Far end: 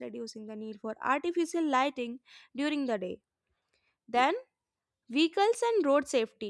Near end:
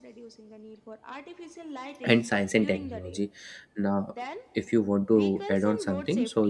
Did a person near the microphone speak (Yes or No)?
Yes